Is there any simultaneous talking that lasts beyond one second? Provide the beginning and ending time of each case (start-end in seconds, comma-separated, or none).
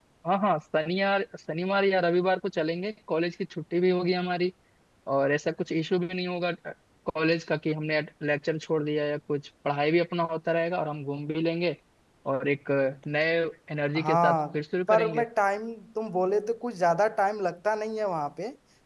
none